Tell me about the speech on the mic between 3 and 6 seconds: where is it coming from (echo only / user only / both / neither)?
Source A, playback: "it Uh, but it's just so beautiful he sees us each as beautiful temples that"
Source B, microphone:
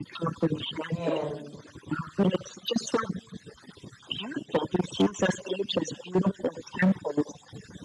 echo only